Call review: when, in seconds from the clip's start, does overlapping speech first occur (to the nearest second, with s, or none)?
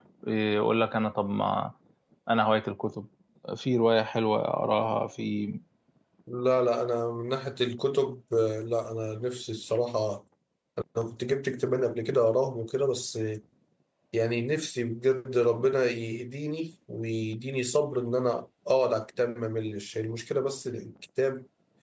none